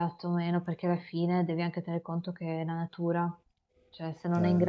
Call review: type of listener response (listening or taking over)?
listening